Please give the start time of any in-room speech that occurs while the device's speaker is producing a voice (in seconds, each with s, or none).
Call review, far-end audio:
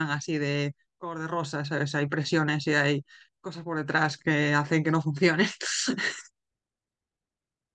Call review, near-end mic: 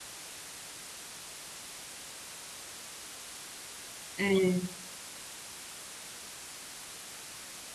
4.2 s